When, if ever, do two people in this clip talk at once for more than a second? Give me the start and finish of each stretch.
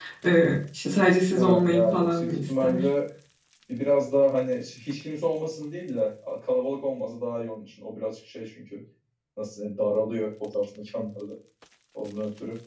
1.4-2.8

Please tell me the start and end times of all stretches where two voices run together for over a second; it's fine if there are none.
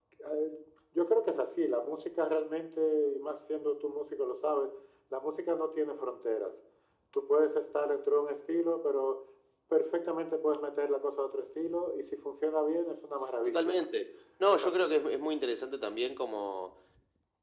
none

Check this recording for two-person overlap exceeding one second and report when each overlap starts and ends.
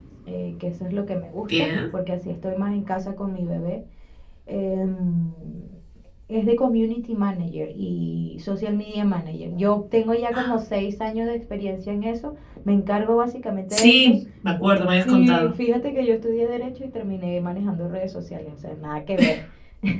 none

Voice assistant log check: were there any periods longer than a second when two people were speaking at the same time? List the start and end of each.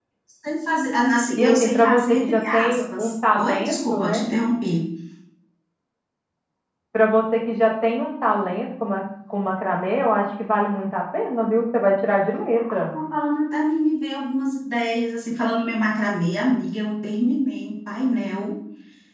1.4-4.2

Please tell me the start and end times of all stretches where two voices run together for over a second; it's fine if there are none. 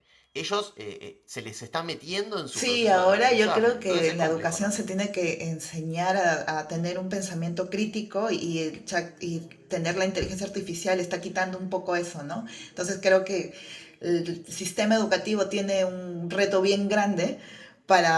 2.5-4.9

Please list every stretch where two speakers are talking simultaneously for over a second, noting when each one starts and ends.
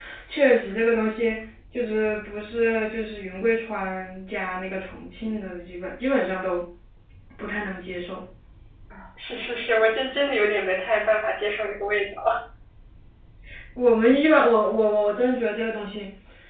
none

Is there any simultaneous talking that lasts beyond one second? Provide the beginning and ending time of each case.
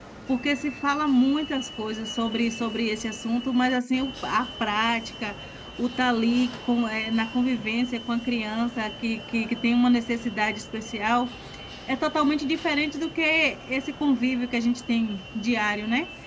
none

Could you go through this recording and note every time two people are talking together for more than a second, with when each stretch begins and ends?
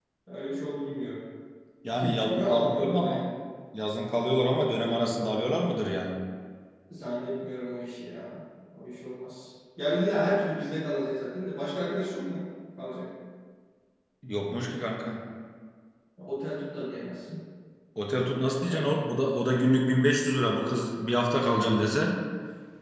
2.0-3.2

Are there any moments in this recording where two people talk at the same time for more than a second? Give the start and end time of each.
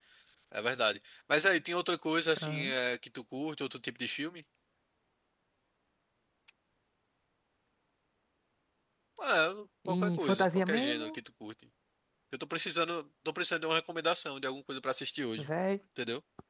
9.9-11.2

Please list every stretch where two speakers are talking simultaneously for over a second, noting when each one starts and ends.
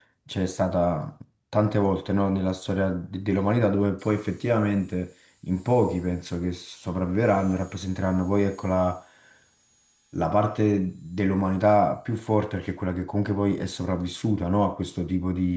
none

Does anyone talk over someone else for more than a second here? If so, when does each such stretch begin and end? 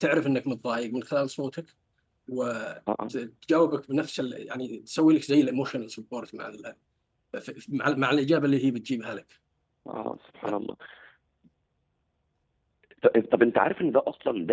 none

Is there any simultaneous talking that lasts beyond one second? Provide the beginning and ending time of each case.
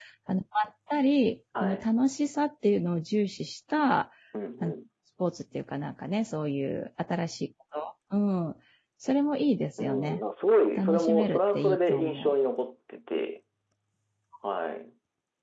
10.8-12.3

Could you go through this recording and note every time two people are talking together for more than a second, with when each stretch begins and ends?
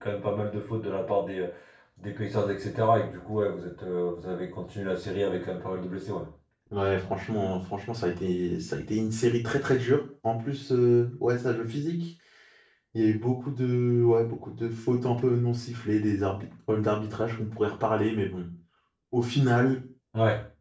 none

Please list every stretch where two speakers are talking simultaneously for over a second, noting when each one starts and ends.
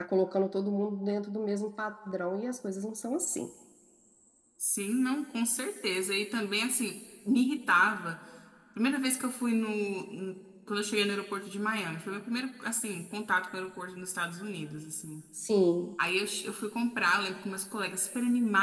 none

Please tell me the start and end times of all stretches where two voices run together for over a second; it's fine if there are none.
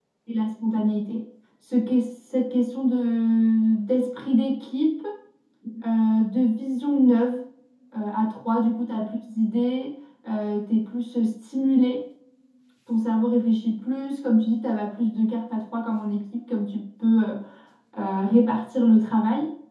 none

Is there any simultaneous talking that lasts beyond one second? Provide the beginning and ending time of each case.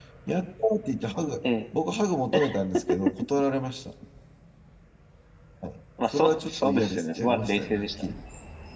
6.1-8.1

